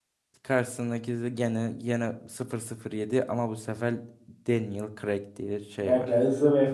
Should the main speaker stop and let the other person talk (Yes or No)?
Yes